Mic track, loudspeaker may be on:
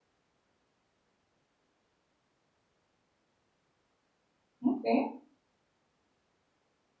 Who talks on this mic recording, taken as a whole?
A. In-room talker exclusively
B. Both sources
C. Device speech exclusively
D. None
A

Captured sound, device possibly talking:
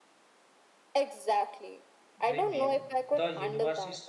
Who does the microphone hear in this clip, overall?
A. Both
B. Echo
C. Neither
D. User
A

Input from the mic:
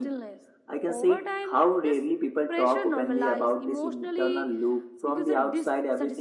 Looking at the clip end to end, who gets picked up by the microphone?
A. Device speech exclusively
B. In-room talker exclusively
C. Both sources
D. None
A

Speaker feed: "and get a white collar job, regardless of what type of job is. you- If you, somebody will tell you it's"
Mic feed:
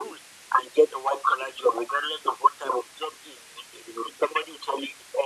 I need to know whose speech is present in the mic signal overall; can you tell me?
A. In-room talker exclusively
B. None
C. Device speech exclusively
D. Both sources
C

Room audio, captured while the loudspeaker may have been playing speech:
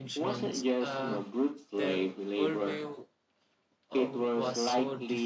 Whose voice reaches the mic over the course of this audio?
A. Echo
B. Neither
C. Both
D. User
C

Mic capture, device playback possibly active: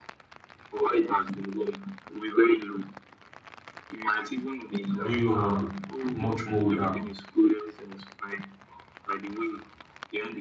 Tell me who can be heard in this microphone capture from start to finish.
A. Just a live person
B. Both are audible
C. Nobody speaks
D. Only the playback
B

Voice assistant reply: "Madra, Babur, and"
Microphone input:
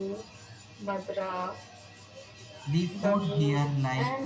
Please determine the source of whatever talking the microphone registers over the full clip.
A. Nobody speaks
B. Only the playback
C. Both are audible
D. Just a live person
C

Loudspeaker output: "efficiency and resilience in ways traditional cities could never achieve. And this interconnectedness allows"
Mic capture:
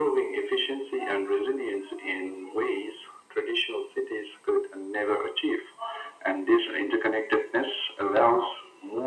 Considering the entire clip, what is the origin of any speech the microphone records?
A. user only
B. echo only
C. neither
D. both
B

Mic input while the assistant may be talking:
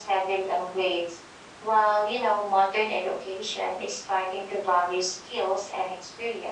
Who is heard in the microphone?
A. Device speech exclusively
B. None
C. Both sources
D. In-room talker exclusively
A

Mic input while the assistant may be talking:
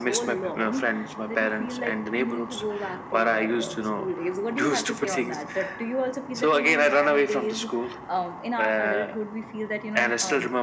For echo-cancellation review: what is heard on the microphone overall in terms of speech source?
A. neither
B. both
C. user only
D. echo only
D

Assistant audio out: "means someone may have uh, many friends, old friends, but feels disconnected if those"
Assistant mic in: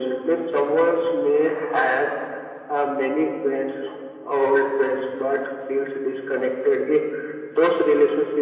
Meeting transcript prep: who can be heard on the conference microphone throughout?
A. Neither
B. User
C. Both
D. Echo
D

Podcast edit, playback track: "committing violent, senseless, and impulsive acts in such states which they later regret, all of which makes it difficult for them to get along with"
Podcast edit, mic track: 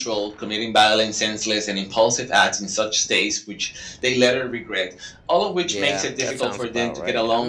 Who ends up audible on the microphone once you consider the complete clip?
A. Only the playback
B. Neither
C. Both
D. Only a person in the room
C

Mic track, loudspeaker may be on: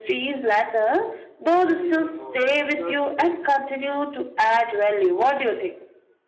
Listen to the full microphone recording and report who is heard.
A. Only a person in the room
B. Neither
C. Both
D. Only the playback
C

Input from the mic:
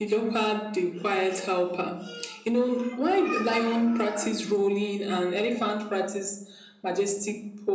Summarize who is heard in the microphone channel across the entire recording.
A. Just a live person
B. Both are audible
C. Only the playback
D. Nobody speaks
C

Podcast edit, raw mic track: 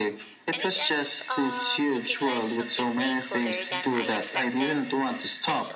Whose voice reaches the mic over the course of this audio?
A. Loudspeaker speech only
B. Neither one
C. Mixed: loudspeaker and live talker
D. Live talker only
C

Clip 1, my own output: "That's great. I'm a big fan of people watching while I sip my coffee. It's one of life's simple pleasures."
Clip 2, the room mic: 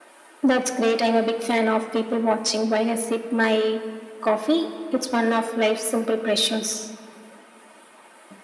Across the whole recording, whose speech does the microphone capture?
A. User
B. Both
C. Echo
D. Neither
C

